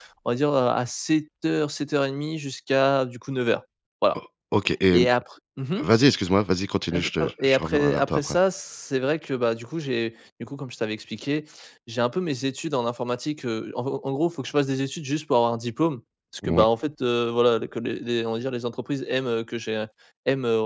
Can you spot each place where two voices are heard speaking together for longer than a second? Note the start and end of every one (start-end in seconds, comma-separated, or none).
6.9-8.3